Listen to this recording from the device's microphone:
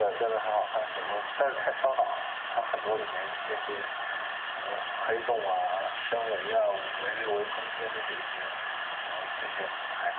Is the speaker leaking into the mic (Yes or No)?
Yes